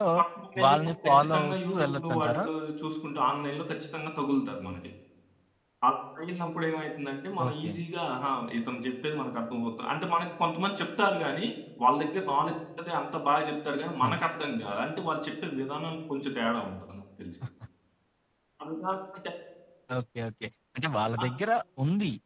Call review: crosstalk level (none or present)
present